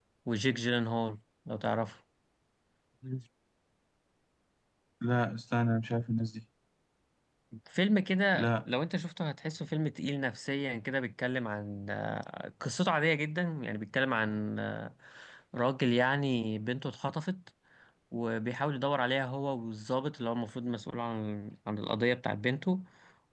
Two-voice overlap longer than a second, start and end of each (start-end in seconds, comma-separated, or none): none